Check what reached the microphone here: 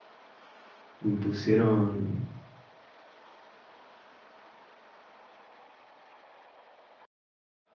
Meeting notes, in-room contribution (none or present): present